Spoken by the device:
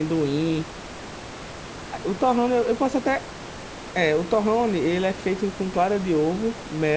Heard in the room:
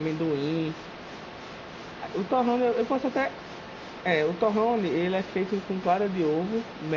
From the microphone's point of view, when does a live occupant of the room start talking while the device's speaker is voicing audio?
none

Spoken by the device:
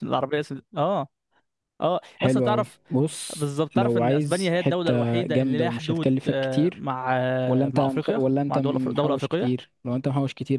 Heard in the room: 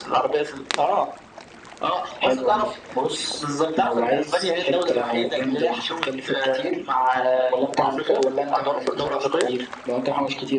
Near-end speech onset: none

